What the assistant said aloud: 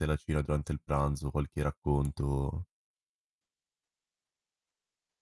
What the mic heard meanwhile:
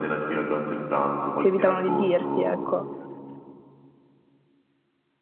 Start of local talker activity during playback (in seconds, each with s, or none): 1.3 s